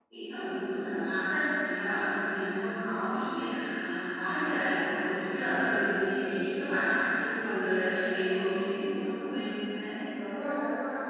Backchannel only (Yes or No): No